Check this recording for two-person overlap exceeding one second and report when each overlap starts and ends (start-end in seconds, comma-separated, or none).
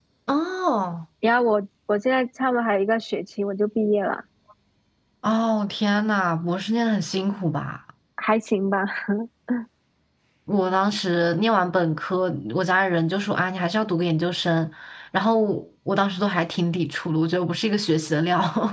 none